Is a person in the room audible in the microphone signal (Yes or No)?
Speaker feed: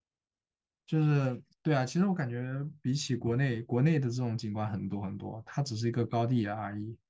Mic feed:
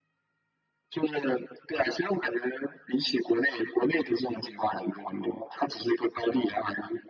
No